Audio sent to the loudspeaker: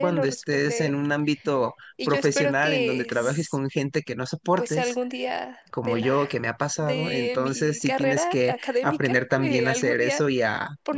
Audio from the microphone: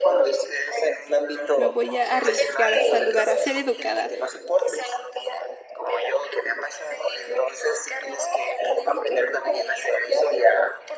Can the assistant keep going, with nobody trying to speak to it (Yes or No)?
No